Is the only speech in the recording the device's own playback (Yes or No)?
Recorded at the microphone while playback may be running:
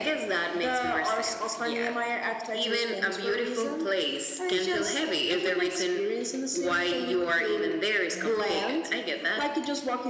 Yes